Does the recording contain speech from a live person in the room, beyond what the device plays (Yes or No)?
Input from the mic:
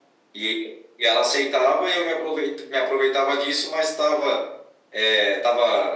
No